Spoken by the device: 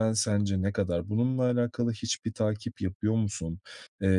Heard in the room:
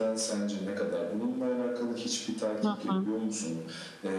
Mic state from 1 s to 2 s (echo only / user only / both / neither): echo only